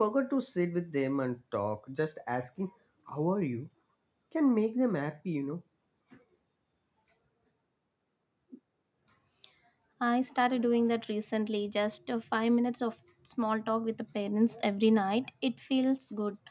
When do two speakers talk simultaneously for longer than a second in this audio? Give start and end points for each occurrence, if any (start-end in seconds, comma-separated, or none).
none